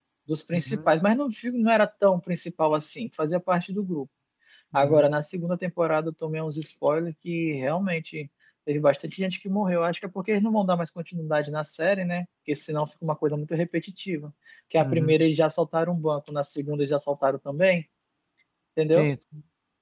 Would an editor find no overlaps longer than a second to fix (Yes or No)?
Yes